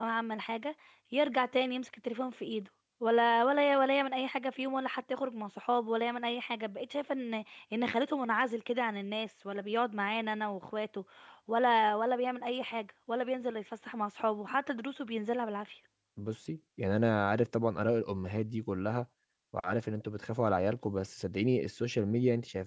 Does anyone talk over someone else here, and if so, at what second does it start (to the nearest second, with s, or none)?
none